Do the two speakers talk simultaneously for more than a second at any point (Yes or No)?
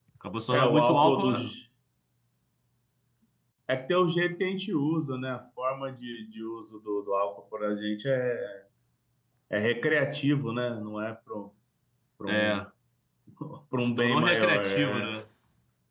Yes